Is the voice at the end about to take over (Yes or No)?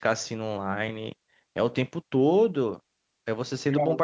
No